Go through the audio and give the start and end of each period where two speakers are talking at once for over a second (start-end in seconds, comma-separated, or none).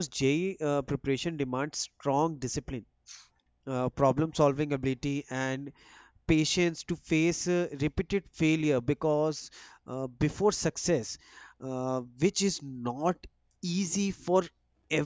none